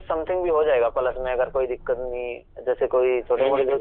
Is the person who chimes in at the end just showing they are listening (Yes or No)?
Yes